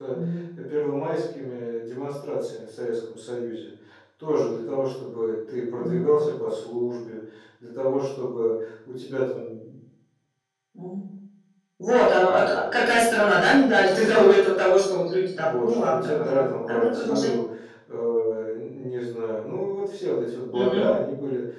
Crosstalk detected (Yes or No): Yes